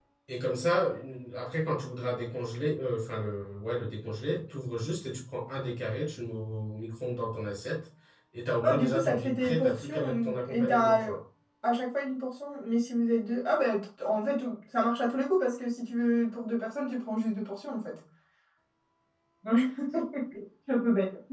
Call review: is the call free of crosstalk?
No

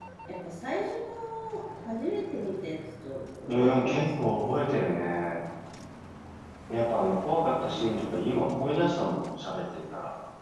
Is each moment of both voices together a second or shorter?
No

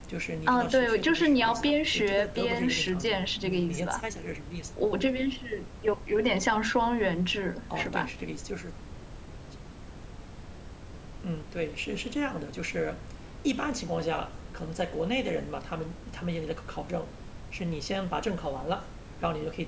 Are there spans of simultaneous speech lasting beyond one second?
Yes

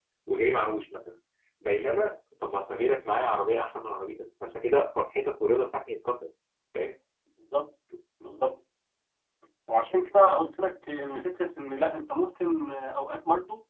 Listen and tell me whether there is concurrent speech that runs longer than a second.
No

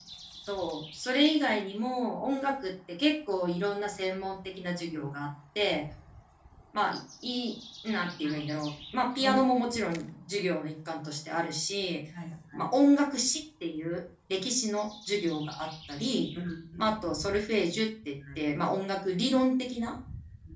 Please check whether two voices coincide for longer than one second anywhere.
No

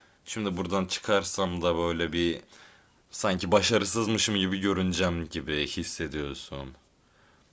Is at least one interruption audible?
No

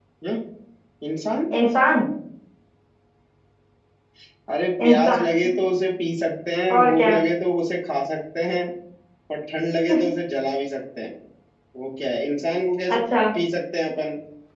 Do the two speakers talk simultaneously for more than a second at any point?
No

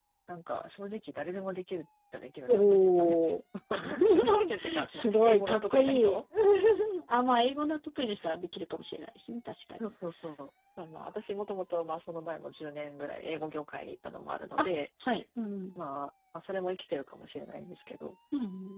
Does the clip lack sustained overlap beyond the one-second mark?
No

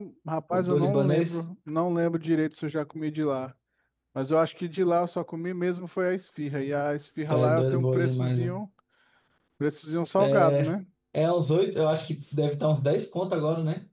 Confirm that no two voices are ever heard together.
No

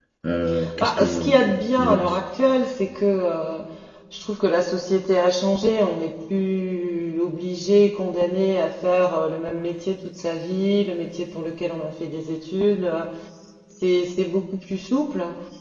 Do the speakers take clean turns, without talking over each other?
No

